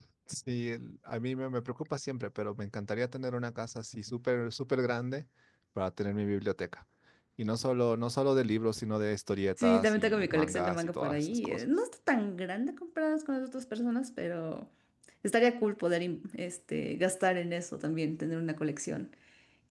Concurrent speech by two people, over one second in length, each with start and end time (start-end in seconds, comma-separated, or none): 9.6-11.7